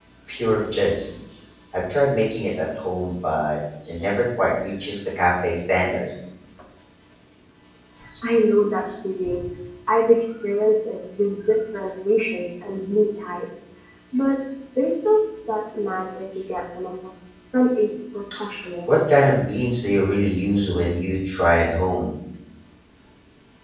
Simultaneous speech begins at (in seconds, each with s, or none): none